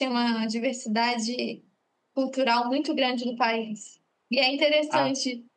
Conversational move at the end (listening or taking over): listening